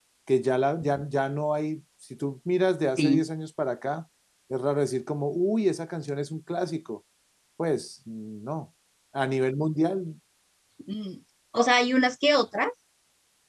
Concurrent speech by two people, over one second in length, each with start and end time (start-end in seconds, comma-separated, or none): none